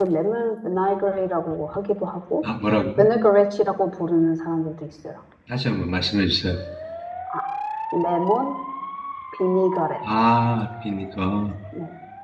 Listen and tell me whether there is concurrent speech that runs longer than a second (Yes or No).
No